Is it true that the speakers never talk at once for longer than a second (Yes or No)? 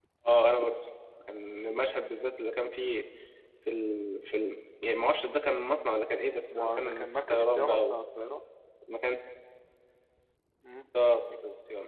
No